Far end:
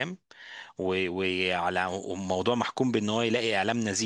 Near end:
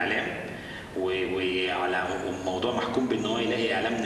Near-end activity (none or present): none